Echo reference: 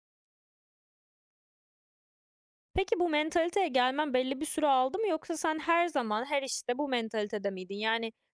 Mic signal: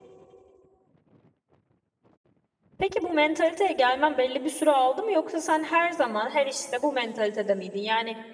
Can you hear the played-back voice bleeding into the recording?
Yes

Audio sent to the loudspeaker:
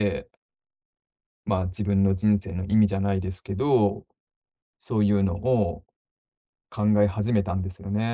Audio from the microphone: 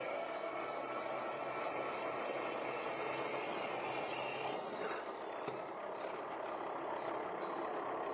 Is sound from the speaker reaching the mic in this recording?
No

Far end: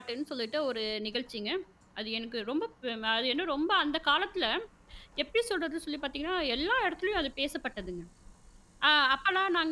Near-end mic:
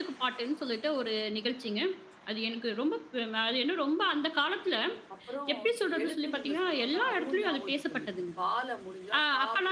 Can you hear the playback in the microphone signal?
Yes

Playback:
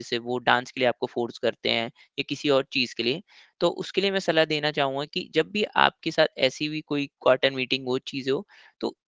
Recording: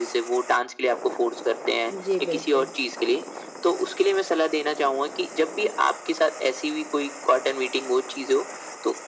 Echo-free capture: No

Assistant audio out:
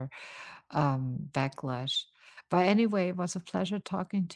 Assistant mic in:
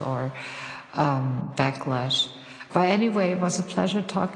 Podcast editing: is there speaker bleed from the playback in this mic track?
Yes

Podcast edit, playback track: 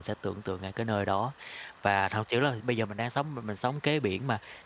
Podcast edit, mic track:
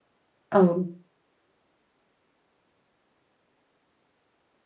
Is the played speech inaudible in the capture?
Yes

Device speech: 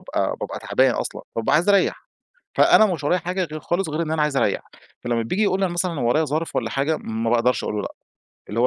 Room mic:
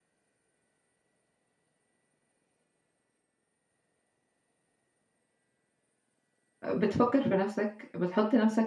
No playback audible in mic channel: Yes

